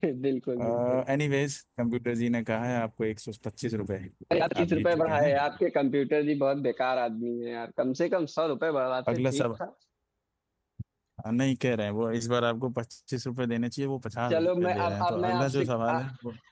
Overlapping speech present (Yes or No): Yes